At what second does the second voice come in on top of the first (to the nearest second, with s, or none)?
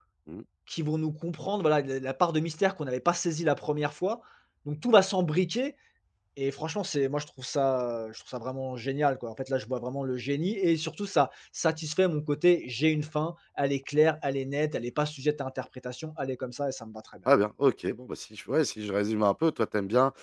none